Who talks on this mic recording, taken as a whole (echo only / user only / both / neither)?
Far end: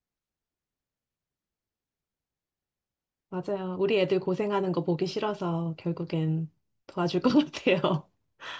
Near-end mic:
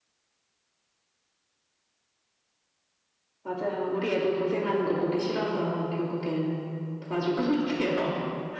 echo only